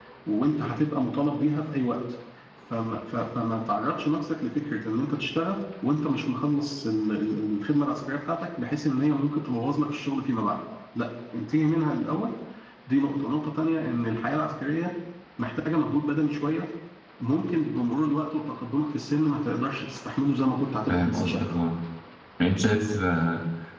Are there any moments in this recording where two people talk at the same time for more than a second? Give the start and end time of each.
none

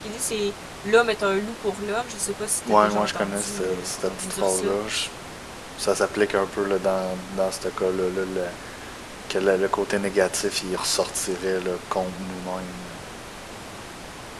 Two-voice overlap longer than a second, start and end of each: 2.7-4.8

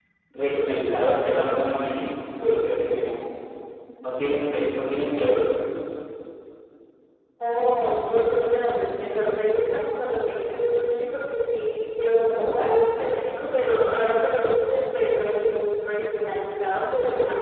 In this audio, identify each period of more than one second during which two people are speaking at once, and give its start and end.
none

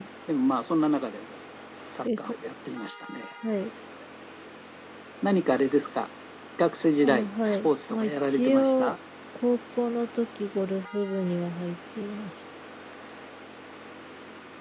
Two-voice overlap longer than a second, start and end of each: 7.0-8.9

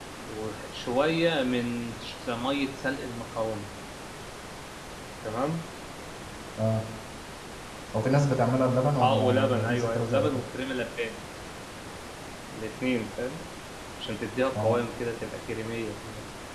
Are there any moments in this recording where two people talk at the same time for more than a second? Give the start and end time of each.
9.0-10.3

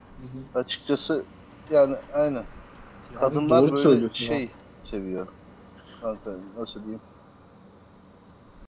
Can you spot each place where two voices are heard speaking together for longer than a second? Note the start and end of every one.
3.2-4.4

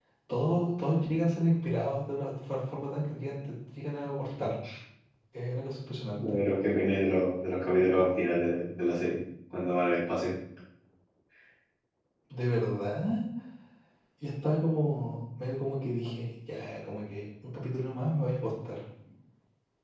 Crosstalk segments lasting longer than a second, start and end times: none

